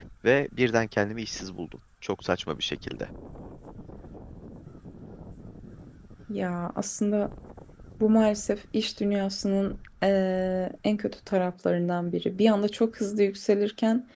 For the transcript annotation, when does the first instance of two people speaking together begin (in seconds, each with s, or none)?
none